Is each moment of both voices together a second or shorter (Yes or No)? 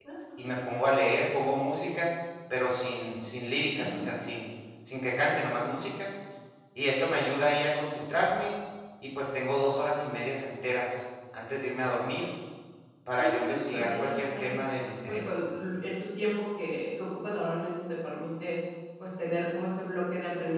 No